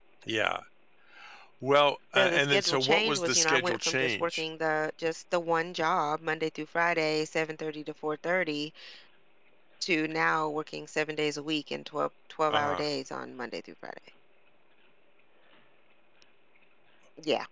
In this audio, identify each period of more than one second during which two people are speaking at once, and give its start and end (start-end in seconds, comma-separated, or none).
2.2-4.4